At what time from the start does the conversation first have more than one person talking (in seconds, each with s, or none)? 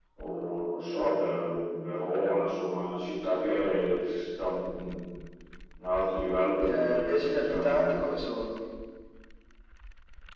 6.6 s